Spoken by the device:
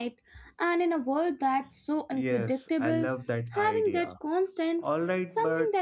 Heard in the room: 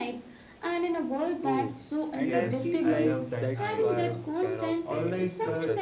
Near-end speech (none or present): present